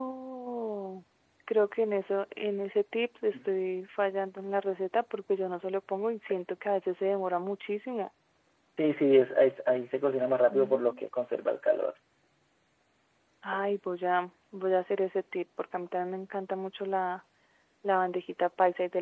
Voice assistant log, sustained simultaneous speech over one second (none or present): none